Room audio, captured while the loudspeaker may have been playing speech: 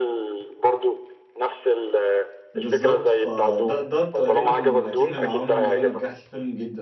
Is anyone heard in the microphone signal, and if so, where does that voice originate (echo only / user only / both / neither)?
both